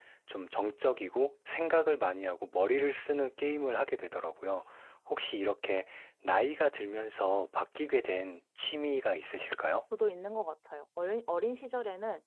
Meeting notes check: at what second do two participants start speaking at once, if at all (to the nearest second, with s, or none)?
none